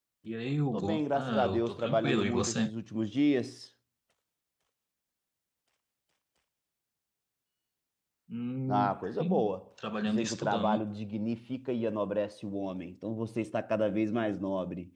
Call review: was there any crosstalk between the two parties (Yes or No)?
Yes